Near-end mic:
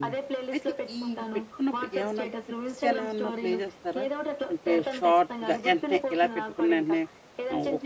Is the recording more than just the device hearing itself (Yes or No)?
Yes